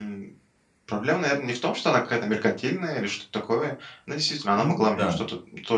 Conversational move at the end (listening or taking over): listening